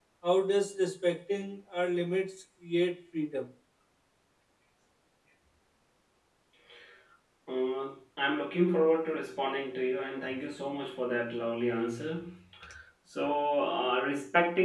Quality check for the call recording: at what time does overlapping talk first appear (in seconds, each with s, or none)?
none